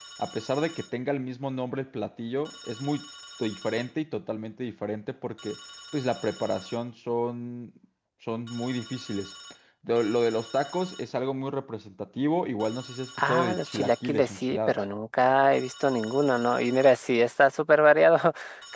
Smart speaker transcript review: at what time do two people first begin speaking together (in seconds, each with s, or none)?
13.2 s